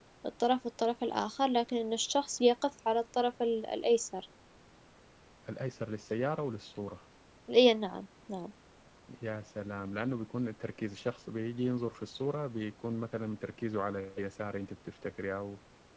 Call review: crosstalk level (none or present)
none